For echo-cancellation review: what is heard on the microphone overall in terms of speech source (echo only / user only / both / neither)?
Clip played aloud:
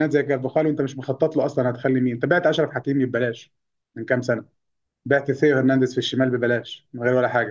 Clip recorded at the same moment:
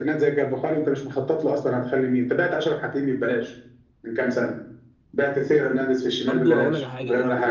both